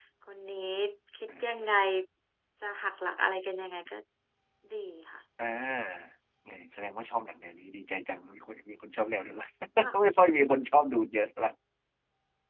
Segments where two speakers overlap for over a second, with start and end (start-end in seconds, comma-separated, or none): none